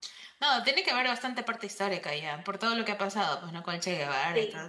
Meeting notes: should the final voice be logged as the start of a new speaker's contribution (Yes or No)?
Yes